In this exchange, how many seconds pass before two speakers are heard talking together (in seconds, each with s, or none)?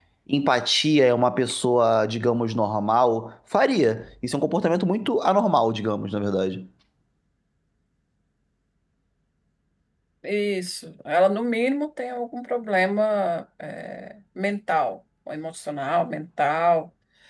none